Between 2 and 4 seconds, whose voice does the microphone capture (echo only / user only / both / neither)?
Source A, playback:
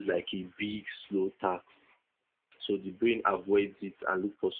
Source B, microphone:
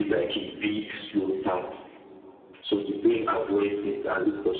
echo only